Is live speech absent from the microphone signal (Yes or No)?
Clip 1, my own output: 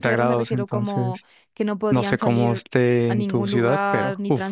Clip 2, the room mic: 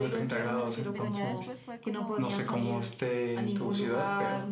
No